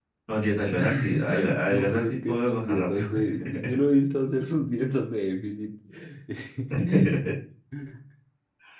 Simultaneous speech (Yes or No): Yes